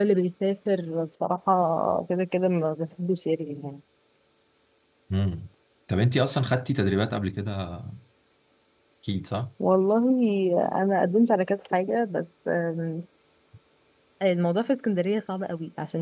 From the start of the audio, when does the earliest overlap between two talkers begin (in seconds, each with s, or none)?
none